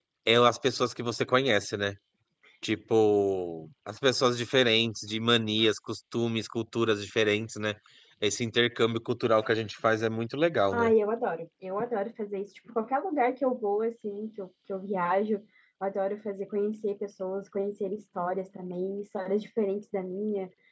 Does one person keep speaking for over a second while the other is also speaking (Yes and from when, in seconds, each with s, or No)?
No